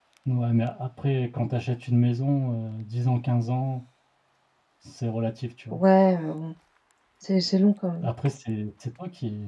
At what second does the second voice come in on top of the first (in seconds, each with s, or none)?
none